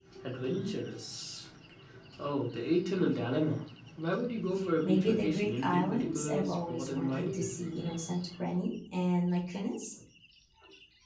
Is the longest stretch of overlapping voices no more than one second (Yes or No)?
No